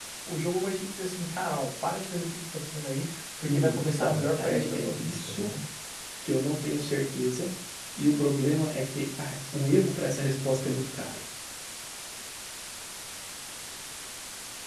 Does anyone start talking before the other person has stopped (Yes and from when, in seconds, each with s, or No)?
Yes, from 3.4 s